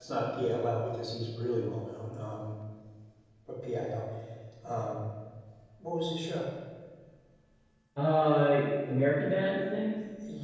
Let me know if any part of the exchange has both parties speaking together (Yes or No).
No